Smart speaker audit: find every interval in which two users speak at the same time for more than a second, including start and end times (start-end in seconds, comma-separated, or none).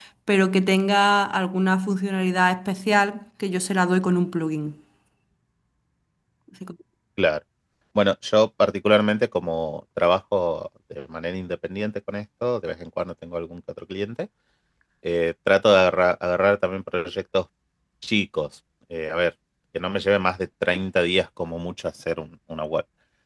none